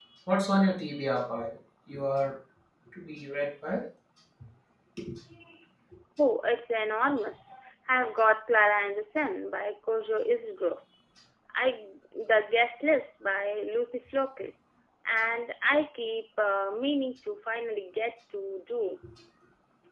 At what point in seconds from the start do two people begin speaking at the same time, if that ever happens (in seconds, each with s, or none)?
none